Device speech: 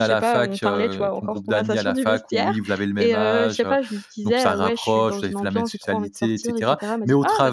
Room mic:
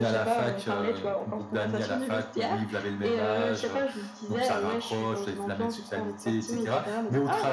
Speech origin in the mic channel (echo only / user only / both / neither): both